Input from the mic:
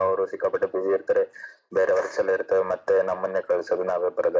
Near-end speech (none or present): none